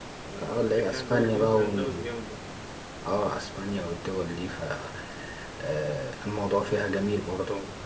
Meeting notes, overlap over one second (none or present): present